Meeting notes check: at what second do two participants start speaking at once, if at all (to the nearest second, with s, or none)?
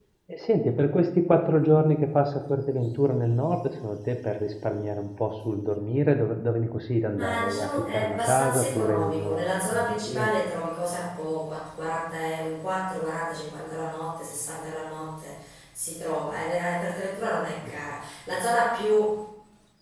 7 s